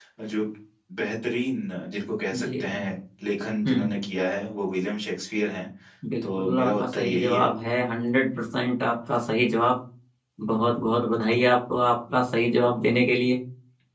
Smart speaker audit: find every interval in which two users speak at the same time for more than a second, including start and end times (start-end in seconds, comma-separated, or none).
6.2-7.5